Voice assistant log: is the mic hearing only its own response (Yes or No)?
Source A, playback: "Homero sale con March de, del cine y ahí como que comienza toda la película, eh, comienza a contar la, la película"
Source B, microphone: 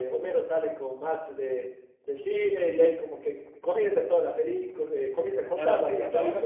No